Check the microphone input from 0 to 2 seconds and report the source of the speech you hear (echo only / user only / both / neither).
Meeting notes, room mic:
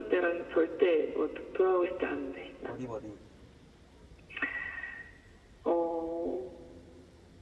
echo only